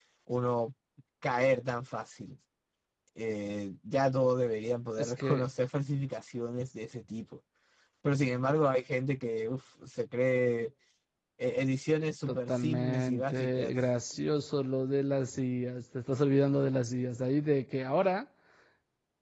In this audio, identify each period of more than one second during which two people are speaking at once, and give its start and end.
12.3-13.8

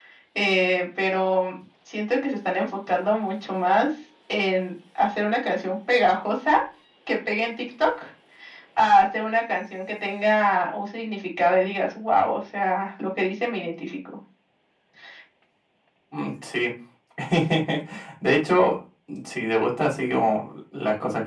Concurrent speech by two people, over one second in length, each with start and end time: none

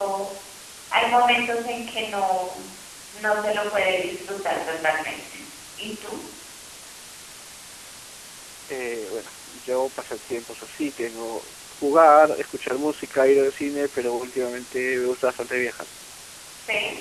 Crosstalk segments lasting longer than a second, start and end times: none

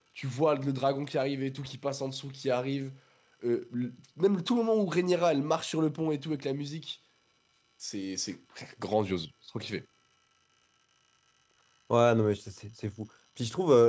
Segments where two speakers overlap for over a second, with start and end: none

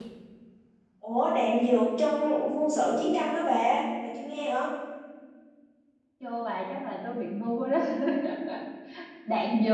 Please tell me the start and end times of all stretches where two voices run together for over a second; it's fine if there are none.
none

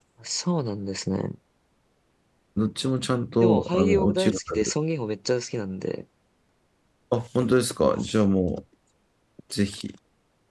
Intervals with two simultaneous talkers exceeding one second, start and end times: 3.4-4.7

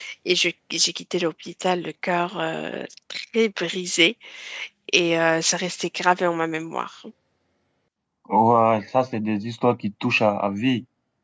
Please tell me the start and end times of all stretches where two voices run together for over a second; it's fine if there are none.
none

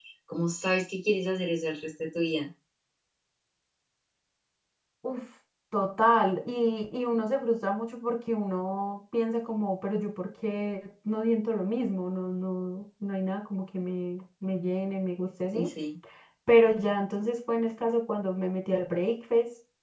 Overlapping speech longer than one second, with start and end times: none

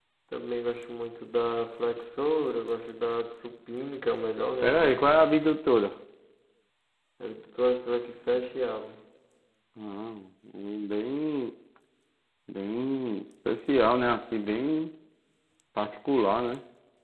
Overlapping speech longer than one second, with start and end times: none

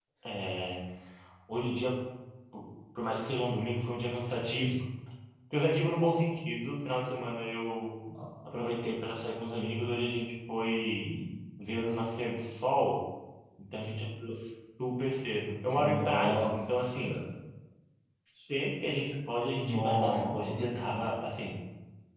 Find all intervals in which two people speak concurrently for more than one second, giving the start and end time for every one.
15.7-17.2, 19.6-21.0

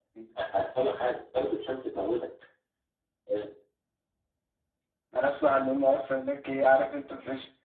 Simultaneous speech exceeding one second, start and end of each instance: none

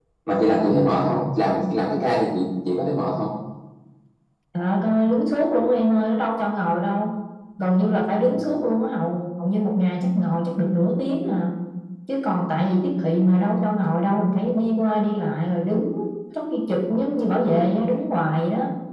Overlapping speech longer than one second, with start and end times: none

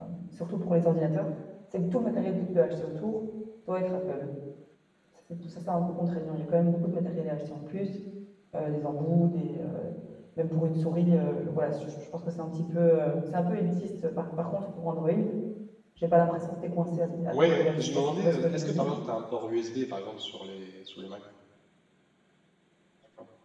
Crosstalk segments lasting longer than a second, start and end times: 17.0-18.9

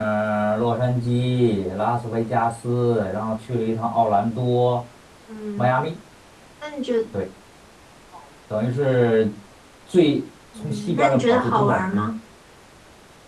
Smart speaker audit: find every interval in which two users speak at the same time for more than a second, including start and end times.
10.5-11.9

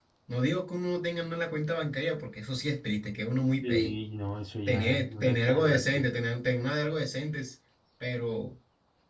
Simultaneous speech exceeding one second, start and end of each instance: 4.7-6.1

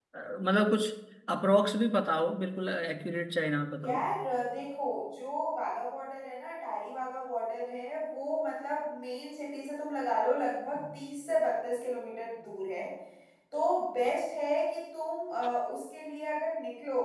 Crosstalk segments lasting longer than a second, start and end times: none

